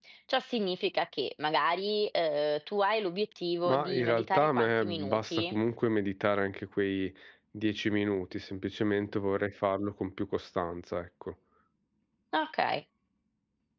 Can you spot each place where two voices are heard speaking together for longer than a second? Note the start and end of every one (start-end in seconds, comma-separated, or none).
3.6-5.5